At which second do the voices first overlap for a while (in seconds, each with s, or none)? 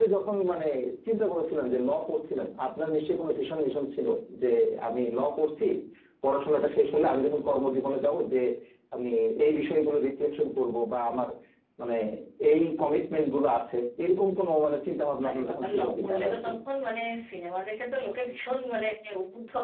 15.2 s